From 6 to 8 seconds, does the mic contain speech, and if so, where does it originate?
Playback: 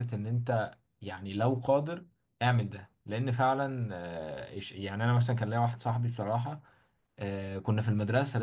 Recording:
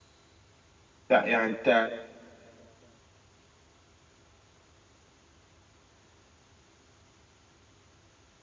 neither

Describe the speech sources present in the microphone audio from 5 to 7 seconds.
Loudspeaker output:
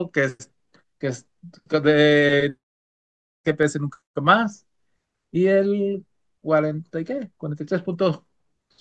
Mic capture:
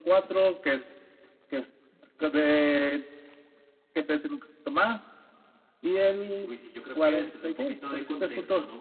both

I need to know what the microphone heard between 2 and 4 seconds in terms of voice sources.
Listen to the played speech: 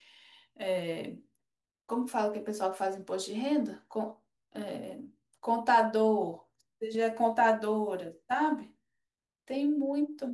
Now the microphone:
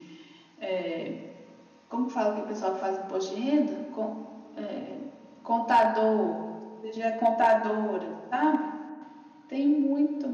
echo only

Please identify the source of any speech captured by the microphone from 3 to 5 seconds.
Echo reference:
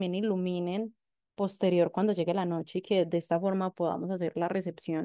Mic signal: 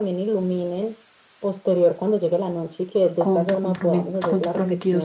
both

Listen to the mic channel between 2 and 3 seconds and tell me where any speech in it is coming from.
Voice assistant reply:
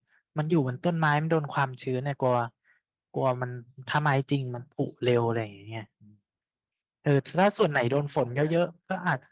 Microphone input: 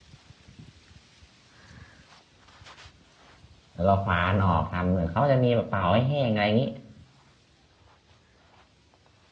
neither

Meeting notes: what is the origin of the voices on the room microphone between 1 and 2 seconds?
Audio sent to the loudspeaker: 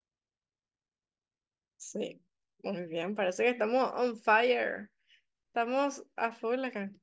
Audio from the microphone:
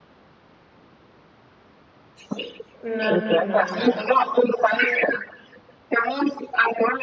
neither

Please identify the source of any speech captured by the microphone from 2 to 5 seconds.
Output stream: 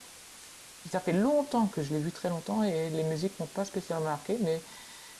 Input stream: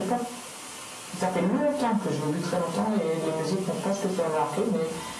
echo only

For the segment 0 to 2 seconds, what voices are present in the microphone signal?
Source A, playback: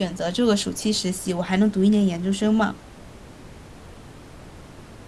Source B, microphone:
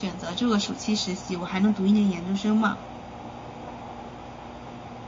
echo only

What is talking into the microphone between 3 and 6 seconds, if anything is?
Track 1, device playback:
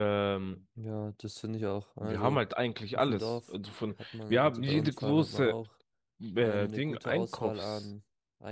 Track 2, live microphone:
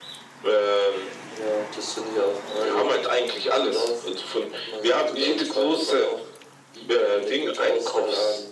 echo only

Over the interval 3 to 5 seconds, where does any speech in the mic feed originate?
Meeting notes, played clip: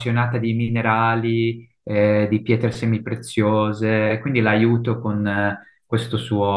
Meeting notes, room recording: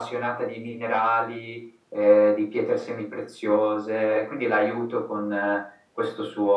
echo only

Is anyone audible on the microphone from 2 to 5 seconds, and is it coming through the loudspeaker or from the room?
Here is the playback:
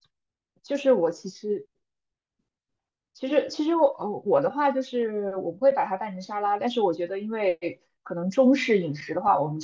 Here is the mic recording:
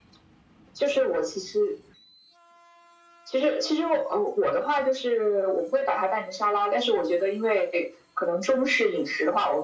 echo only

